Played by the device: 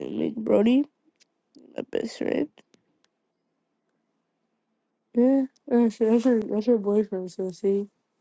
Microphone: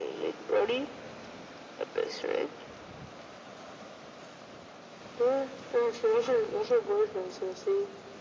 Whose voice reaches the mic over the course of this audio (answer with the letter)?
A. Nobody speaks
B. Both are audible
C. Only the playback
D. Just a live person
C